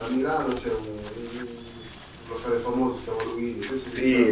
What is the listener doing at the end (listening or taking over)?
taking over